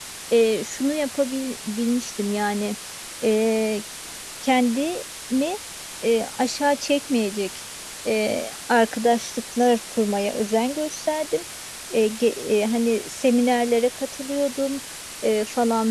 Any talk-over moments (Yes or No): No